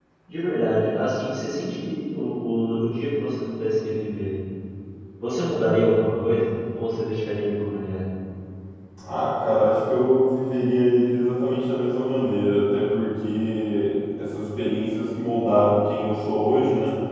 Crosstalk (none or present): none